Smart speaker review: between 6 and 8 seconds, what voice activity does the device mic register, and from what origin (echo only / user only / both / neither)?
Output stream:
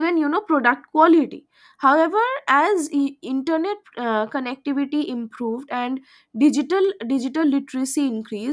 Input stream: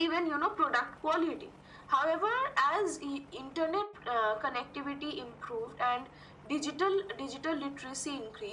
echo only